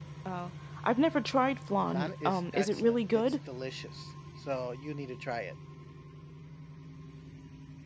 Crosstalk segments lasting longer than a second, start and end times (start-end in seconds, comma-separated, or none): 1.9-3.2